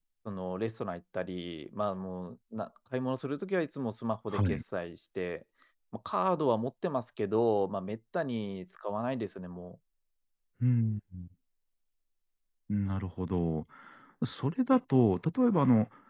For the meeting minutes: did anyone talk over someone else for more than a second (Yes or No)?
No